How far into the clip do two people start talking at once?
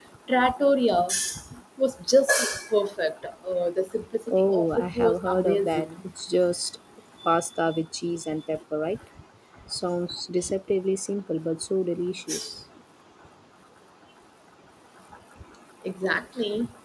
4 s

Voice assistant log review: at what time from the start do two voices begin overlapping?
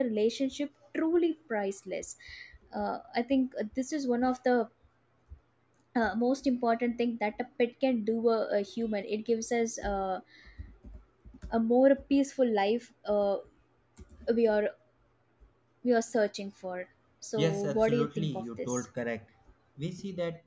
17 s

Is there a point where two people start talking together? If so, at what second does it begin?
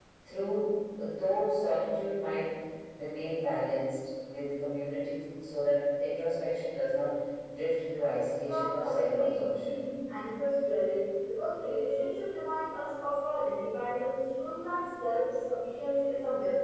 8 s

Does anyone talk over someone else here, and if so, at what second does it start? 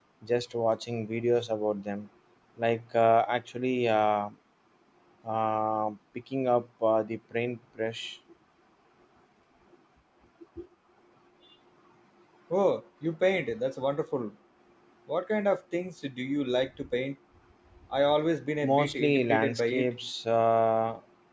19 s

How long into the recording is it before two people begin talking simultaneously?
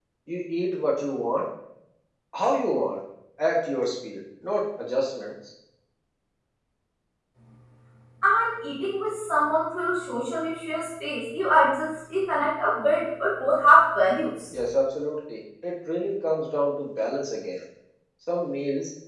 none

